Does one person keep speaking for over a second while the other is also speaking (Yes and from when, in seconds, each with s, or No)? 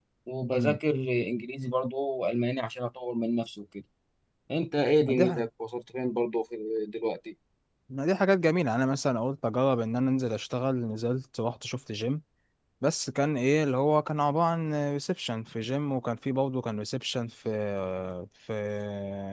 No